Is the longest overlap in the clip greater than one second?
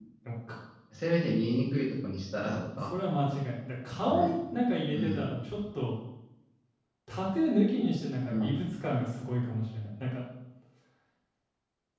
No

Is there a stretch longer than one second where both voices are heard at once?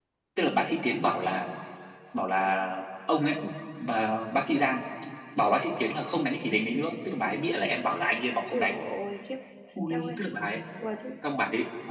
No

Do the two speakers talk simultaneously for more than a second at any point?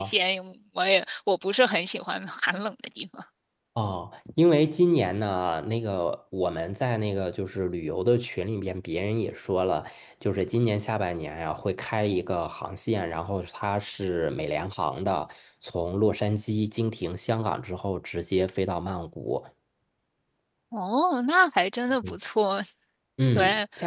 No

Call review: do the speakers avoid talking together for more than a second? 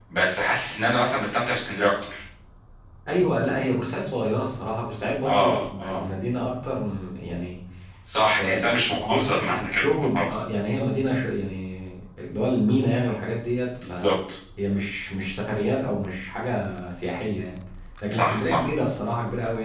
No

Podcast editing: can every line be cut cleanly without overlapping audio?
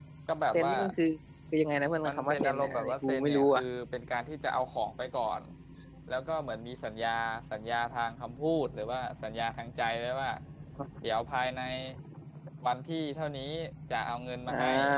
No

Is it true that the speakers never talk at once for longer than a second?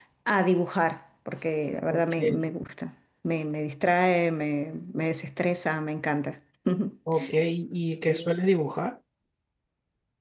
Yes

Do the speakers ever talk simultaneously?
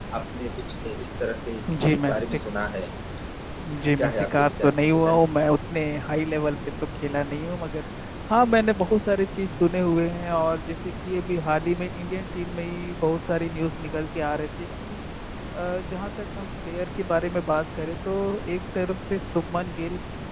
Yes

